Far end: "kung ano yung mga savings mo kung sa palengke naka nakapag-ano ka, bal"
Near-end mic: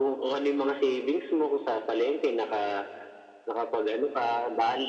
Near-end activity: none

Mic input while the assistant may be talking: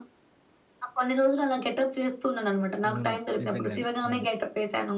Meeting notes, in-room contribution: present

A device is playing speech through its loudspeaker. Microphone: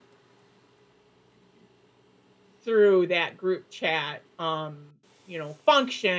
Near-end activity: present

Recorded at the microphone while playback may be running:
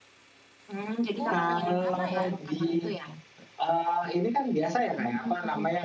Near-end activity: present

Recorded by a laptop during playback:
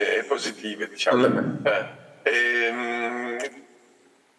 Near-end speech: present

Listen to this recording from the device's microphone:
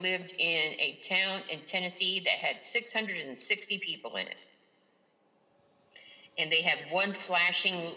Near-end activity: none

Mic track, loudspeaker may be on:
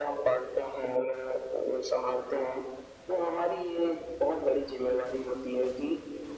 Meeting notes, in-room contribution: none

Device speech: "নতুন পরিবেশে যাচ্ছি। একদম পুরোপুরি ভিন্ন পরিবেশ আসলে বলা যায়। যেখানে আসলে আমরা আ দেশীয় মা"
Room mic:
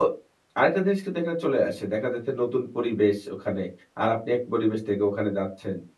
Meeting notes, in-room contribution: present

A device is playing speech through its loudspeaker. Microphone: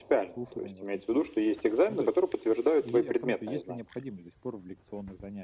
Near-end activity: present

